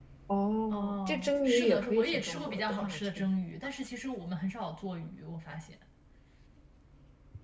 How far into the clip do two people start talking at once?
0.7 s

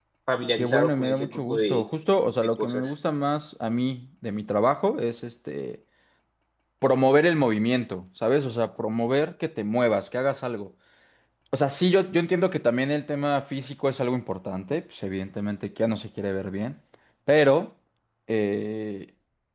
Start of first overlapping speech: 0.6 s

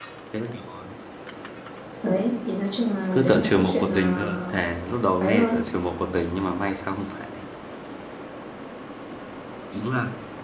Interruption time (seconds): 3.1 s

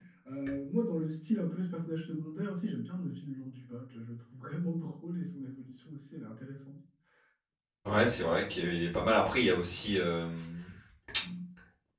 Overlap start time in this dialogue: none

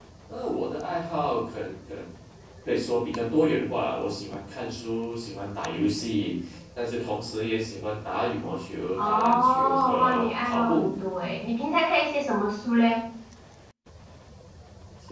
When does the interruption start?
9.0 s

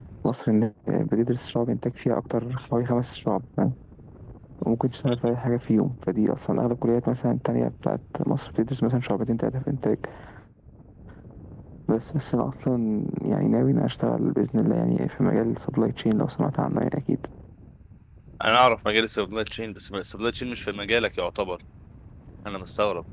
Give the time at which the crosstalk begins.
none

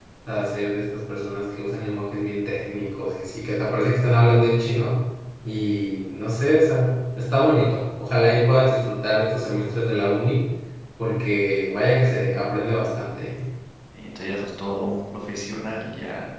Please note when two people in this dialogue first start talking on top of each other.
none

